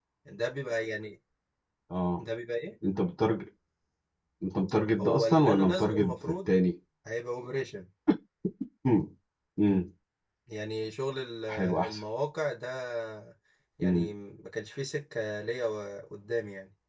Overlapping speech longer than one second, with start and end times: 5.0-6.5

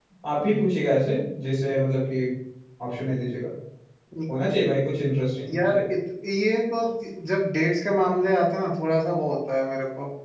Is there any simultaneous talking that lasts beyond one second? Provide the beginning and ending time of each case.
none

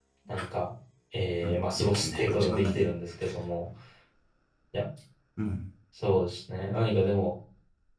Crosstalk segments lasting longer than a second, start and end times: 1.4-2.9

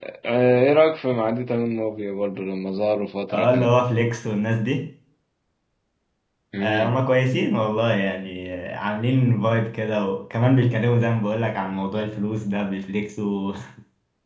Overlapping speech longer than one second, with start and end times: none

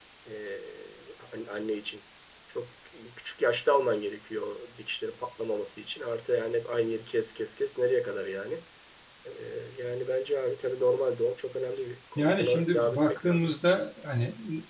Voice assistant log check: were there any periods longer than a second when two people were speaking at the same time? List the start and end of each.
12.2-13.6

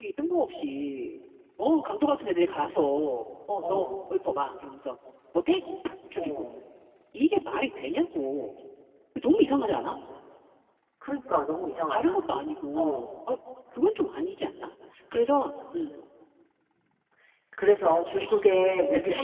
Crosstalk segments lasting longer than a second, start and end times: none

